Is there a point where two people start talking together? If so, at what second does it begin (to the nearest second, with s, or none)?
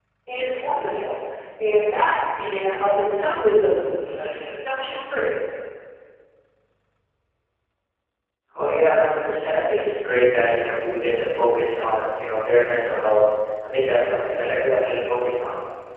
none